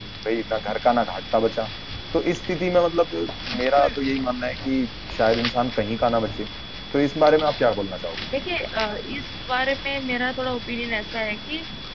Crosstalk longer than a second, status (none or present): none